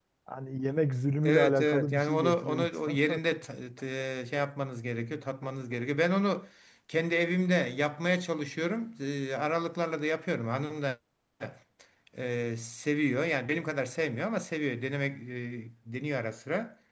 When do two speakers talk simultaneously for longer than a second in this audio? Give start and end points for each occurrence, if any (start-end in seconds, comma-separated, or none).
1.2-3.4